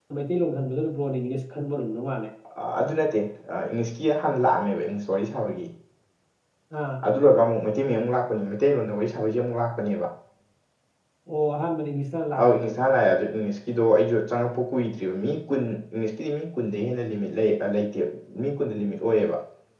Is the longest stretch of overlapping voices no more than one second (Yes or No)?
Yes